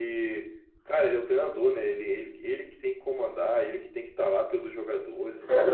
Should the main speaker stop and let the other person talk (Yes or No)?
Yes